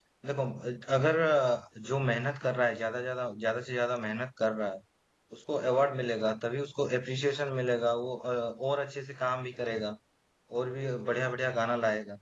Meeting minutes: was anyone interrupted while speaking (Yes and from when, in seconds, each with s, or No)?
No